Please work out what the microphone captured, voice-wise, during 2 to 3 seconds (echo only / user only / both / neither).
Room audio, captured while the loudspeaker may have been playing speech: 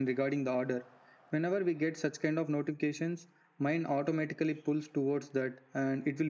echo only